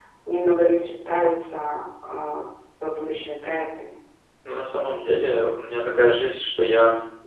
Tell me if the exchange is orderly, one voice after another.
Yes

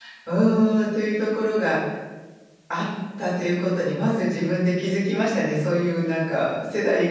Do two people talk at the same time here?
No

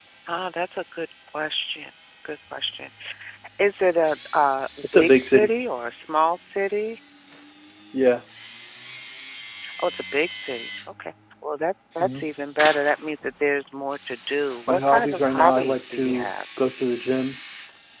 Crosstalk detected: Yes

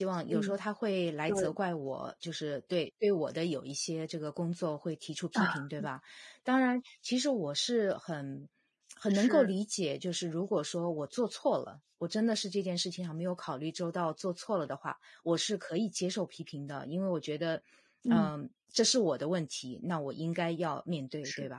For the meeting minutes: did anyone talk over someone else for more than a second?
No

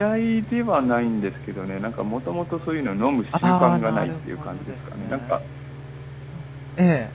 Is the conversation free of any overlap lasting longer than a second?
No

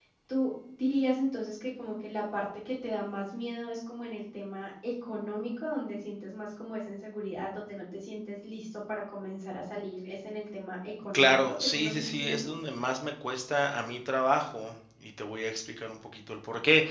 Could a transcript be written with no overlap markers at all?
No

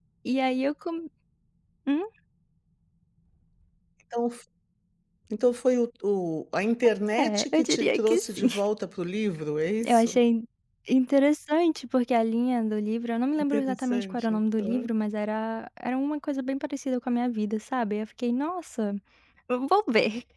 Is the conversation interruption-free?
No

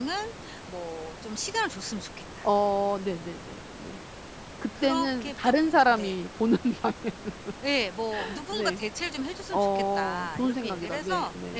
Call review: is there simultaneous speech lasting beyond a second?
Yes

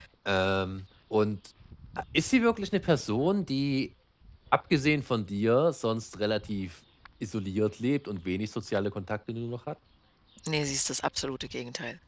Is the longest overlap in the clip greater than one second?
No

